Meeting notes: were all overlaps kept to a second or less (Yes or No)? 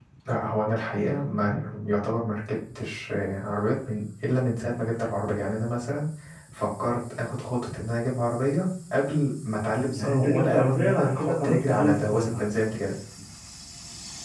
No